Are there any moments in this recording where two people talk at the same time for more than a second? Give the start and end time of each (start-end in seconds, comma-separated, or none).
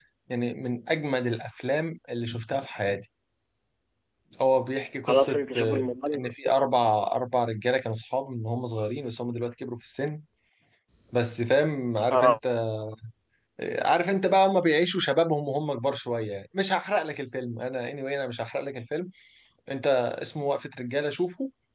5.1-6.3